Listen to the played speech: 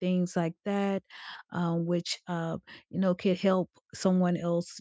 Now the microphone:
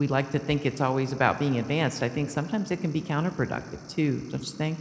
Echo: none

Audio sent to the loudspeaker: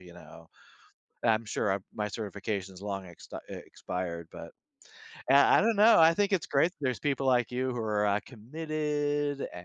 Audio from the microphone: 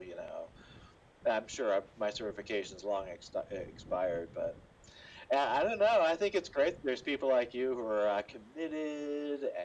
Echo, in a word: present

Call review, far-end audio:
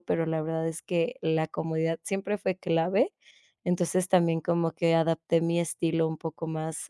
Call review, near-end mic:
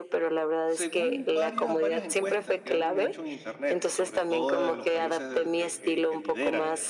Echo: present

